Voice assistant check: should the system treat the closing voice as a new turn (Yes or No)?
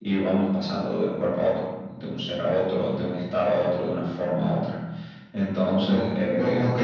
Yes